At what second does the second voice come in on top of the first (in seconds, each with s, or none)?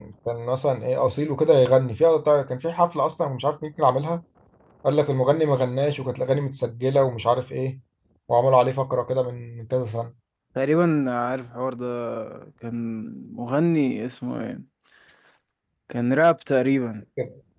none